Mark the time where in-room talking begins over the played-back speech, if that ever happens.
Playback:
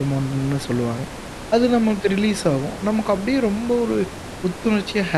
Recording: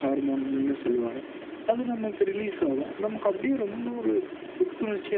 none

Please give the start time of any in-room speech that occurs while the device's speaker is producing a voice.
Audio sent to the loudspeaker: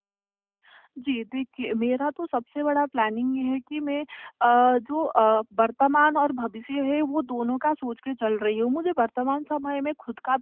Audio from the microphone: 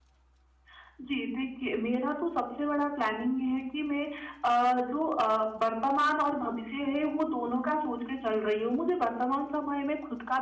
none

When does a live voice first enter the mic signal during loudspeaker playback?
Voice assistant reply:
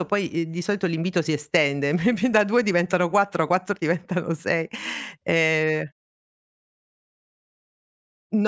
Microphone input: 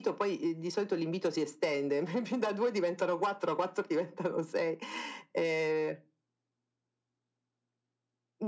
none

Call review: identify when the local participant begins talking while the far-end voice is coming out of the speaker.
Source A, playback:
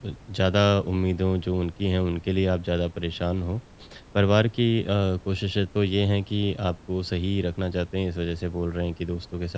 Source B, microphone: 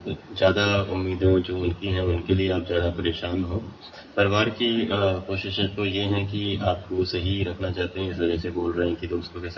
none

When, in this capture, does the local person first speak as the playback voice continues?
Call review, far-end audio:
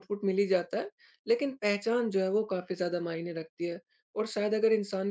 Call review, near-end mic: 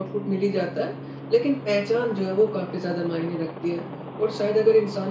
none

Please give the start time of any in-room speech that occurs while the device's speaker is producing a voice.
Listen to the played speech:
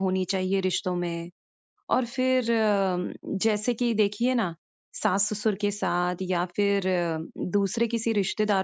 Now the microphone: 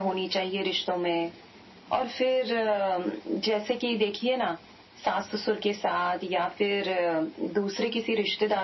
none

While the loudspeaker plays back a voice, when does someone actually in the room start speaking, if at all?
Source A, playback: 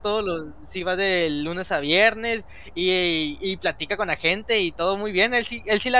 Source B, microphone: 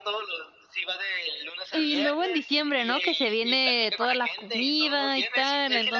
2 s

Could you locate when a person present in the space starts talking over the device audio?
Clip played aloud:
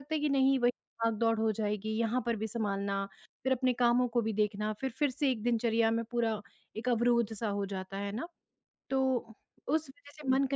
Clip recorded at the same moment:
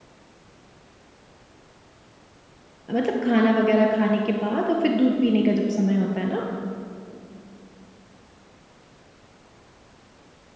3 s

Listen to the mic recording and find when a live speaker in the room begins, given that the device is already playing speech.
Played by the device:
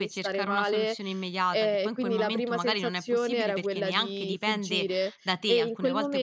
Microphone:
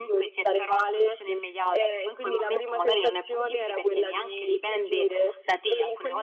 none

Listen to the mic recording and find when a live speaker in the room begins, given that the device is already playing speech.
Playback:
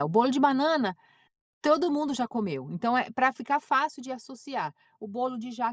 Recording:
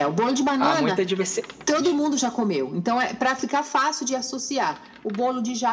1 s

